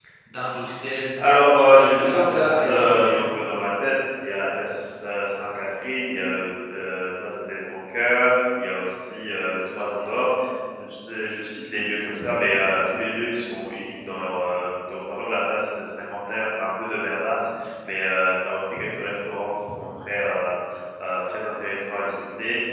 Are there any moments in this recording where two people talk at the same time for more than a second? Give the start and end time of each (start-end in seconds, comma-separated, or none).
1.6-3.2